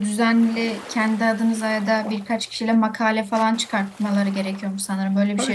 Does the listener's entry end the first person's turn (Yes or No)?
Yes